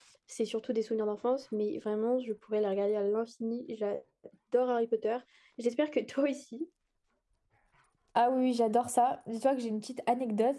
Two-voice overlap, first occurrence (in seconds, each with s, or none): none